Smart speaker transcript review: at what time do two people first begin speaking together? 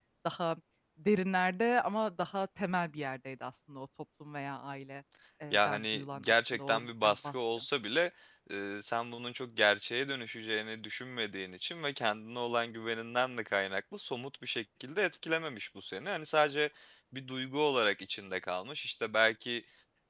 5.5 s

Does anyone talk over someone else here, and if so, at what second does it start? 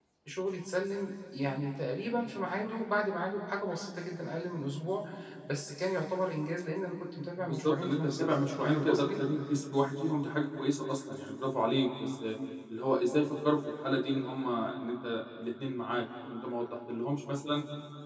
7.4 s

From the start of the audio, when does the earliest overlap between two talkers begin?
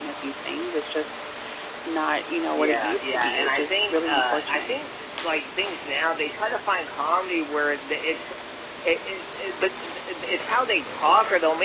2.5 s

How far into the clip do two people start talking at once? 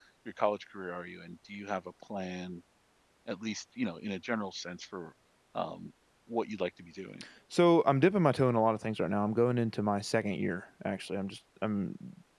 none

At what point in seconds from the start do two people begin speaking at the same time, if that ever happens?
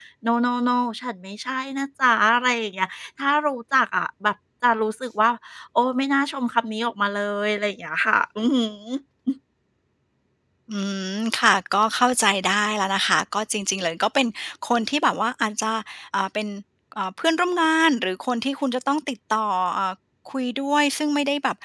none

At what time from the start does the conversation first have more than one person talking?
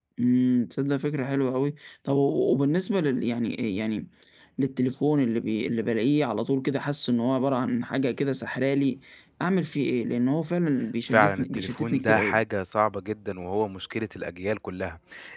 11.1 s

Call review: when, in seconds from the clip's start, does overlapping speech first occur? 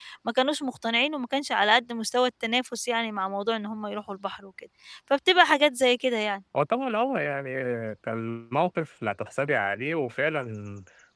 none

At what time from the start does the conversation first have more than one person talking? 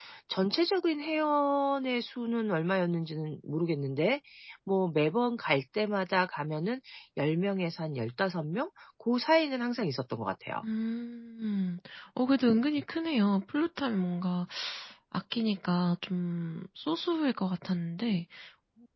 none

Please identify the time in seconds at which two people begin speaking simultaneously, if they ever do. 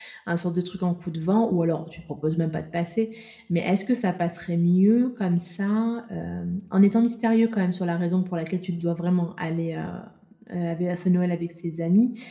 none

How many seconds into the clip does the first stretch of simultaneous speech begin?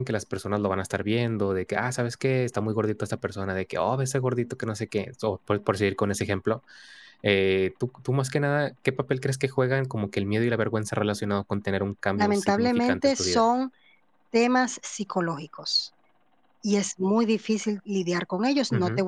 12.2 s

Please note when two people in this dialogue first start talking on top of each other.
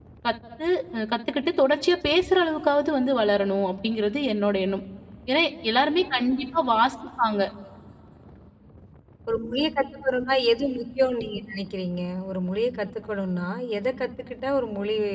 none

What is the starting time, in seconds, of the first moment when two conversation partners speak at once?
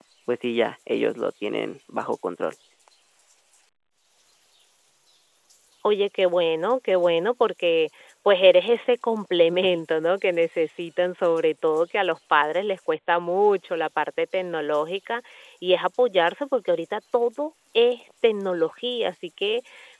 none

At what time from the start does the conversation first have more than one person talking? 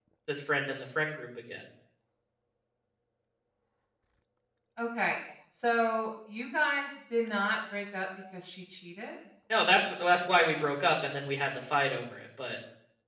none

